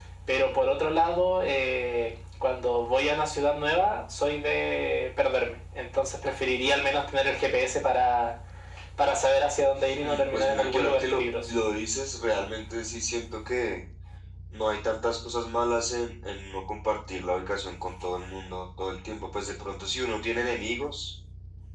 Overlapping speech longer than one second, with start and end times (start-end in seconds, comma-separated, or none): 10.0-11.6